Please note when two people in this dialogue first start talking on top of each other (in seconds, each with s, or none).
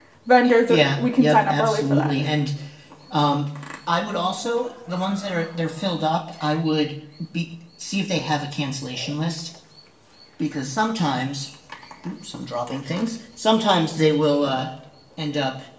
0.7 s